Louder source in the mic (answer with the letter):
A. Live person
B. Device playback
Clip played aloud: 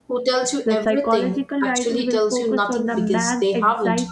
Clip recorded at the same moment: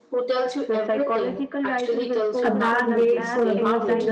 A